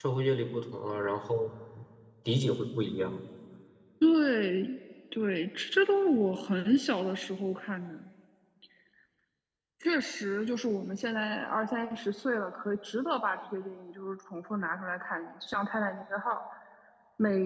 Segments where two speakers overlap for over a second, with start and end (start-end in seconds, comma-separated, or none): none